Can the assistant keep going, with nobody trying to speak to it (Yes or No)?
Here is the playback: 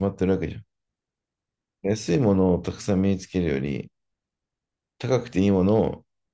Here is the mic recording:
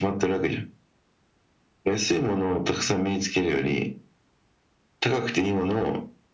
Yes